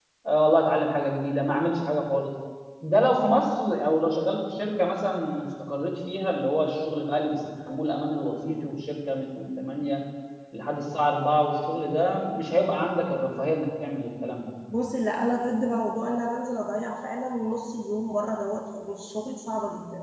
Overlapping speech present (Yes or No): No